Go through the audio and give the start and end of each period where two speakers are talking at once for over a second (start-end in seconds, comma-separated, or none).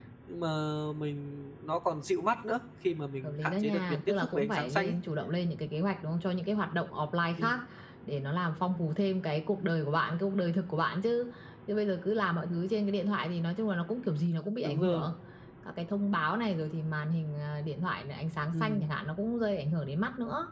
3.2-4.9